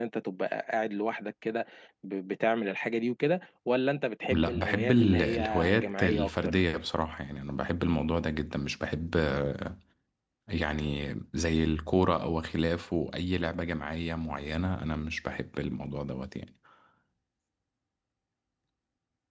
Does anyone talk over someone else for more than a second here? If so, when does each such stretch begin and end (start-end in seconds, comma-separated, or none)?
4.3-6.6